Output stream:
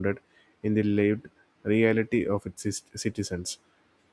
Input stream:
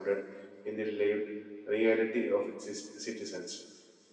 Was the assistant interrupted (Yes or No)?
No